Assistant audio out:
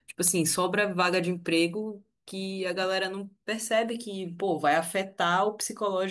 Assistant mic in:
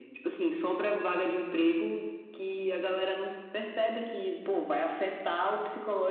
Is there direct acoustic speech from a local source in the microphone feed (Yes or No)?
No